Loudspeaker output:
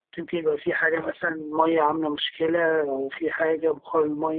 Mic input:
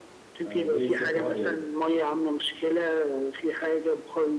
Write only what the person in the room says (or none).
فالبي دي سي حوار يعني